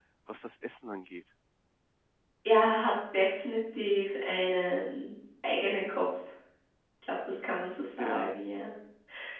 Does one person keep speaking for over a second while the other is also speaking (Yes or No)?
No